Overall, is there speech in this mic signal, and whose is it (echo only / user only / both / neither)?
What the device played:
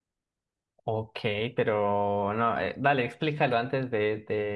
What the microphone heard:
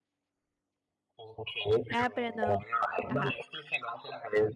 both